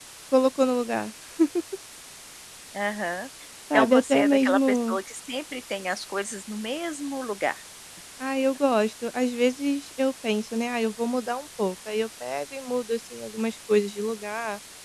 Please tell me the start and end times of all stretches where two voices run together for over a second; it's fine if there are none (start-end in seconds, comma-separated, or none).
3.7-5.0